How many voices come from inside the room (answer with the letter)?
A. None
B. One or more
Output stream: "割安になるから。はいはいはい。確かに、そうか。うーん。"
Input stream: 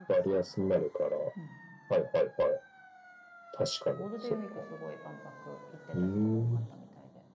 B